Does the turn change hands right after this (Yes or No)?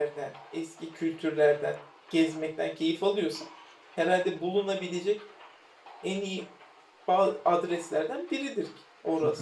Yes